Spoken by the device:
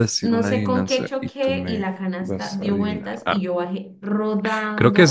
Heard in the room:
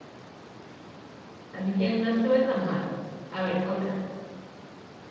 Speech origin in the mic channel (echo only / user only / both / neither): user only